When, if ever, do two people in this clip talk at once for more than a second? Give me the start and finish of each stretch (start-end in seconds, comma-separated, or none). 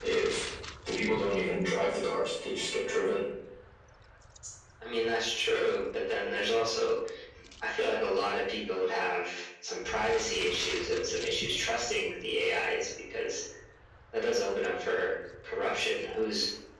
none